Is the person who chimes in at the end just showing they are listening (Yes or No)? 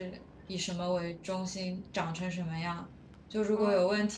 Yes